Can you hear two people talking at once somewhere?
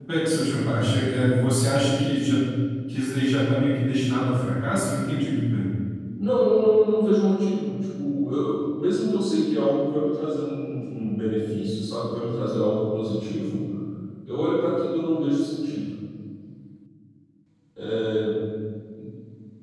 No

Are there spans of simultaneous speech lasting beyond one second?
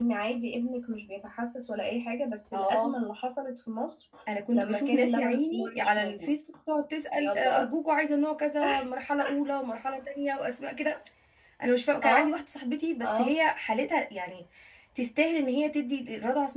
Yes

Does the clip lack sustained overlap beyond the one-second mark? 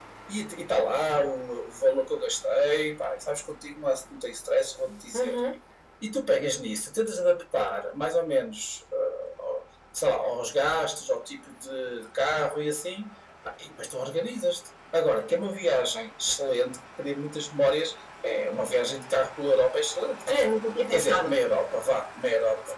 Yes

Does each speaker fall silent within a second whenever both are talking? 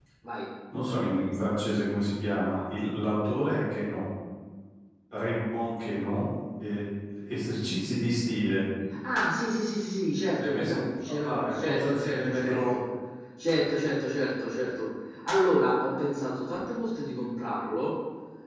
No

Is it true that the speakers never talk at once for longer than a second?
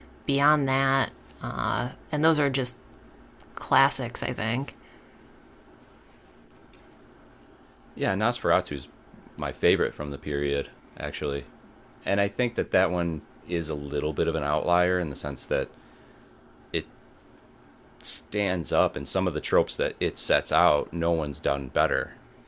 Yes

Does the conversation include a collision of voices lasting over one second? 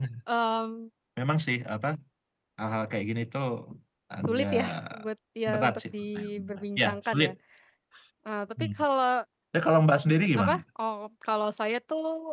Yes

